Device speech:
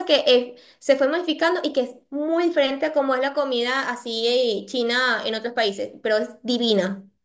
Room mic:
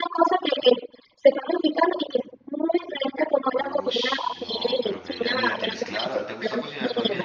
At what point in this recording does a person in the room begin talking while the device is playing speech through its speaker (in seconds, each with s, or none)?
3.5 s